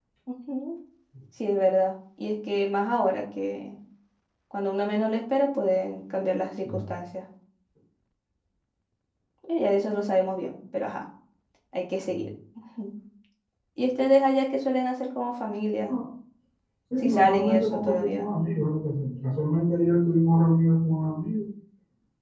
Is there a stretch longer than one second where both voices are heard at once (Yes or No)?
Yes